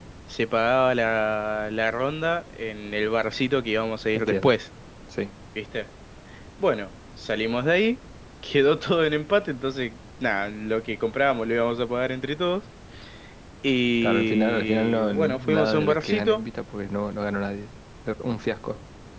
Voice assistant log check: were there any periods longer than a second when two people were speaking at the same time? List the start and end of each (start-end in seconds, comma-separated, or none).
14.0-16.4